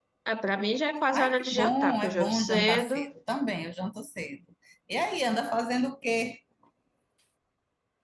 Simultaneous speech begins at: 1.1 s

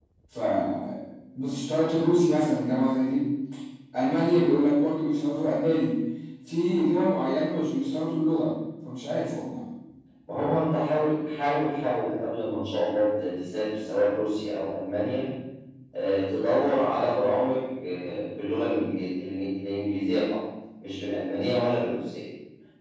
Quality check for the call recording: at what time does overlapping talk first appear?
none

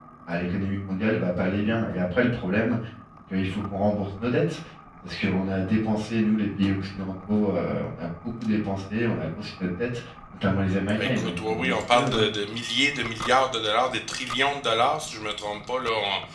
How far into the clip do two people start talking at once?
11.0 s

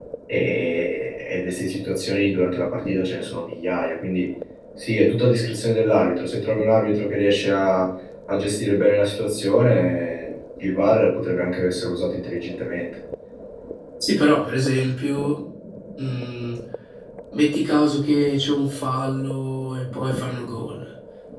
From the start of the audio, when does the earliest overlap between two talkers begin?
none

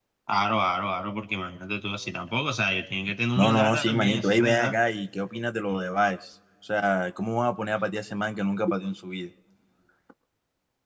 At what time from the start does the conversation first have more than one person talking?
3.4 s

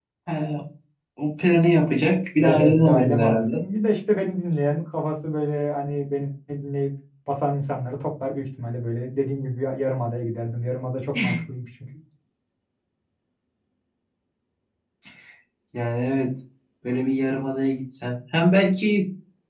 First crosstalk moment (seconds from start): 2.4 s

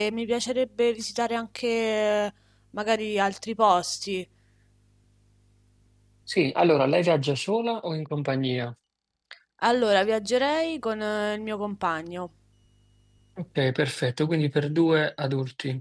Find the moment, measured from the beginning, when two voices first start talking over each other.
none

